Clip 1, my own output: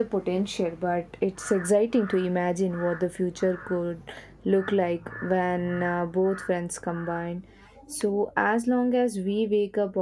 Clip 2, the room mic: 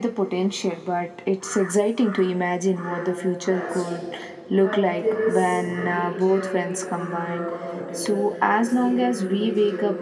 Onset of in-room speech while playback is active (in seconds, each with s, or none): 2.8 s